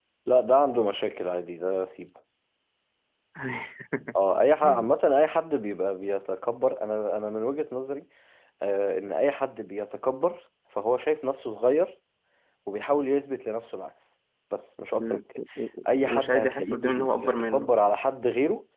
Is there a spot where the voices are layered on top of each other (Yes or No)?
Yes